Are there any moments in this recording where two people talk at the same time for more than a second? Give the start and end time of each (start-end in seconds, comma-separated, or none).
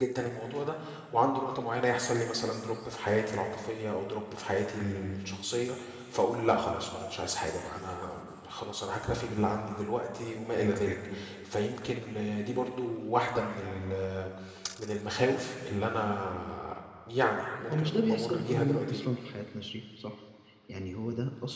17.7-19.0